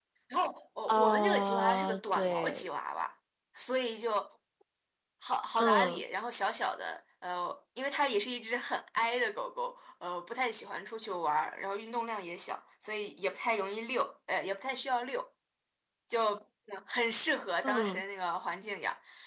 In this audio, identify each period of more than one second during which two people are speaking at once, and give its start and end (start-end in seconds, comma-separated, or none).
0.9-2.7